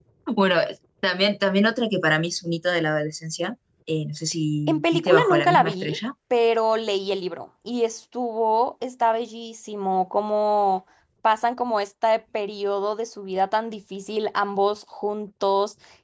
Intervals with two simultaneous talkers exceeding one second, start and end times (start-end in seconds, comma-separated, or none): 4.7-6.0